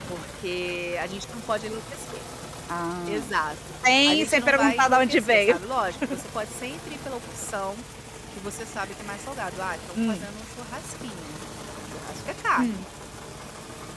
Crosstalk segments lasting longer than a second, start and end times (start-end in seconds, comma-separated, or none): 3.8-5.6